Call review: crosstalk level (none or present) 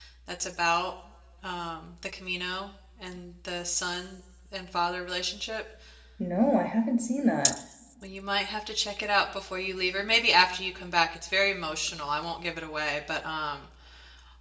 none